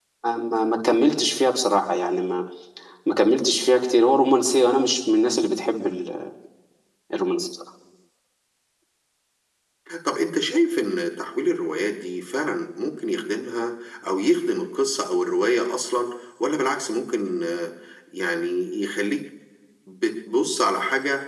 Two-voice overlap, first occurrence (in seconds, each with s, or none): none